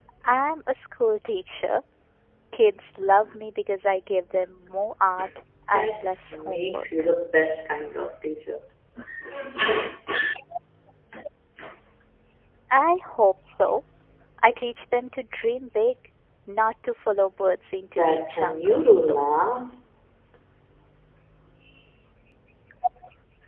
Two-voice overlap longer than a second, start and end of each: 5.7-7.1, 17.9-19.2

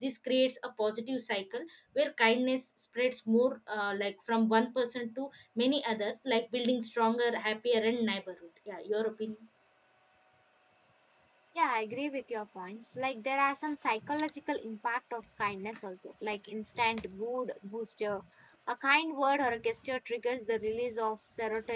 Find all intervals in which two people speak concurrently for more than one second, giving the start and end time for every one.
none

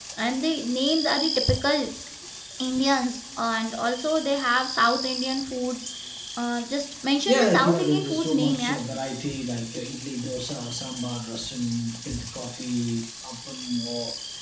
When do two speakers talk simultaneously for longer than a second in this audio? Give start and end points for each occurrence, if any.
7.3-8.8

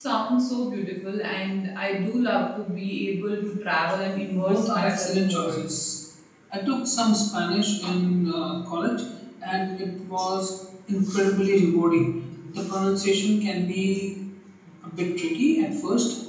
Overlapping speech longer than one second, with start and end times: 4.4-5.6

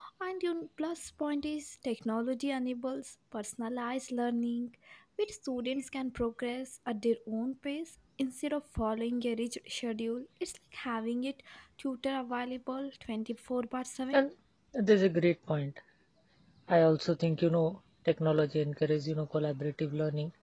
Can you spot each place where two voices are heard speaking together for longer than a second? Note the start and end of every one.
none

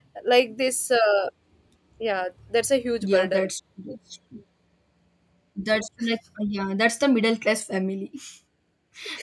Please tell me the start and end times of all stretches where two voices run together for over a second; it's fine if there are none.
none

